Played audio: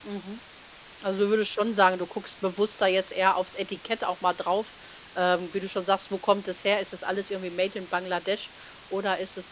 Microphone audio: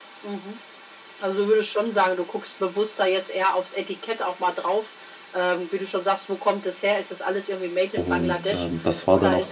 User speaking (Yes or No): Yes